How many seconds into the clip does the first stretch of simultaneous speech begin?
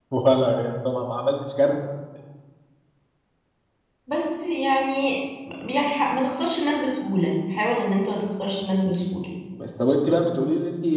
none

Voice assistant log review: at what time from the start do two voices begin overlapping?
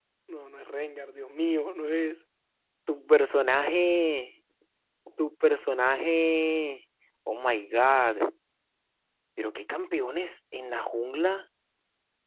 none

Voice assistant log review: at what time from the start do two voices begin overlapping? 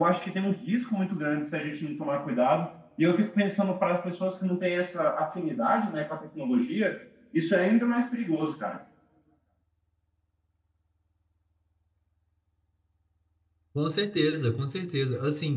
none

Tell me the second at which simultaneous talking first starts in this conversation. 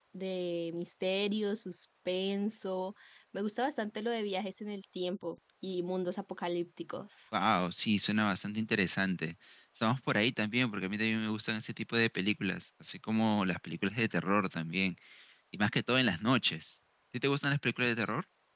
none

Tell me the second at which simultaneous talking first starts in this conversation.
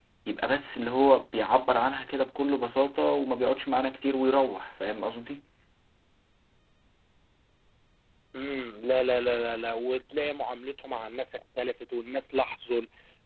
none

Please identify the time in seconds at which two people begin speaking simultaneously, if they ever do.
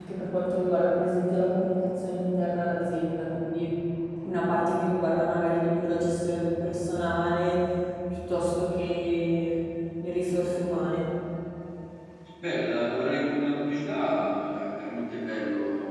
none

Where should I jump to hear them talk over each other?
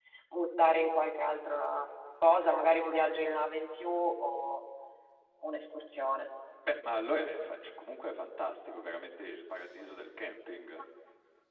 none

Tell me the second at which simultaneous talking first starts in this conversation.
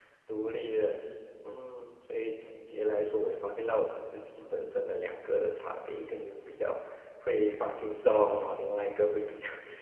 none

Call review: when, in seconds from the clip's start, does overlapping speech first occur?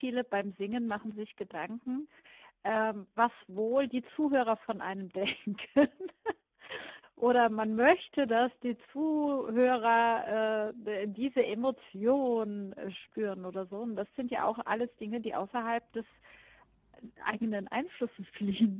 none

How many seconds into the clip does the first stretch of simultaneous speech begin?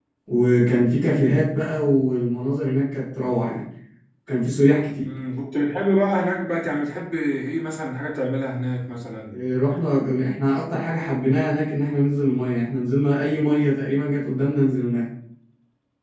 none

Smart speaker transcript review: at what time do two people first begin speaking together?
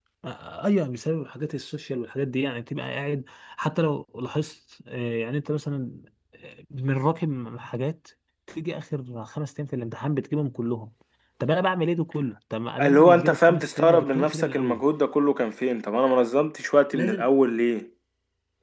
13 s

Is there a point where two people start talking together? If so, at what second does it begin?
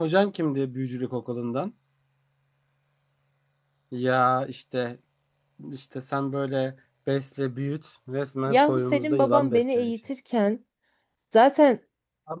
8 s

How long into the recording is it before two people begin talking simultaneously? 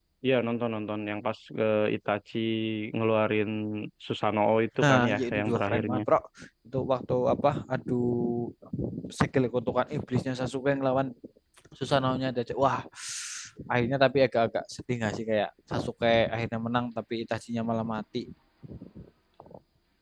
5 s

